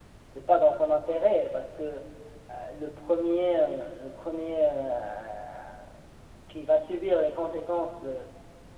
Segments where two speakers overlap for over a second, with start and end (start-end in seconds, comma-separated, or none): none